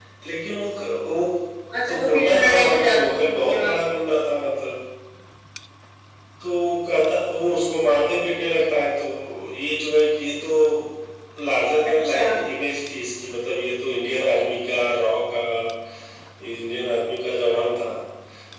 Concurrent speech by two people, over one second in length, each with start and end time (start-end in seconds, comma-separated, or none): 1.9-3.8